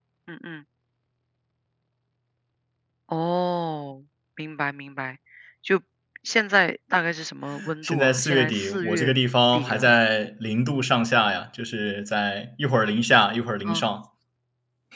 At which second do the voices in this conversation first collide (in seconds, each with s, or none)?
7.8 s